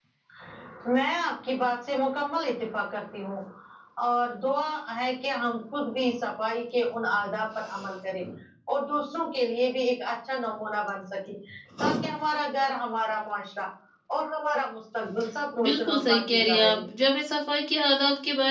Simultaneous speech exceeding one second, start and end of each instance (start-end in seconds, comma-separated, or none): 15.6-16.8